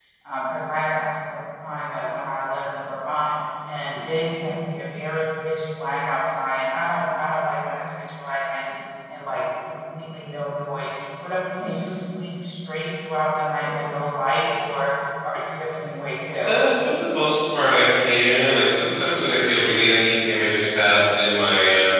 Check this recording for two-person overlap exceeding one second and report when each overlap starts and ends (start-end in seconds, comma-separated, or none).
none